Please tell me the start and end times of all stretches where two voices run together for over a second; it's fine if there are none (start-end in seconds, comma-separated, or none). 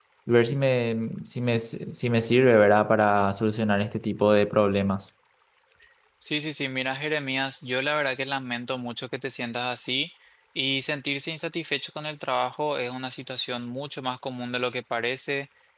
none